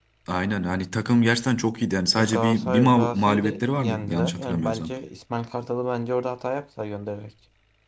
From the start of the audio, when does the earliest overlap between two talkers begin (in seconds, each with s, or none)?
2.1 s